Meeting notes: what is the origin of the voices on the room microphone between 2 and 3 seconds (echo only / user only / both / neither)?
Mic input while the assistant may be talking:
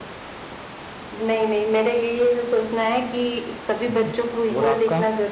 echo only